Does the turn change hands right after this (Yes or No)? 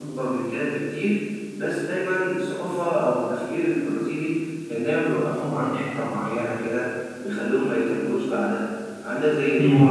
No